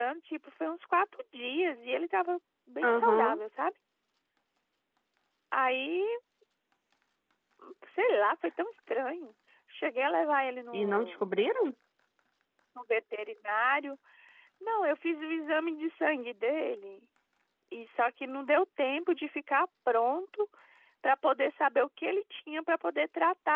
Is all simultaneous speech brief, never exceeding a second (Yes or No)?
Yes